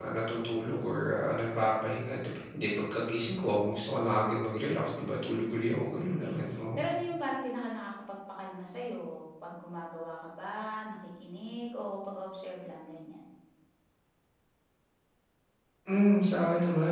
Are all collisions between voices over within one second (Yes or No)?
Yes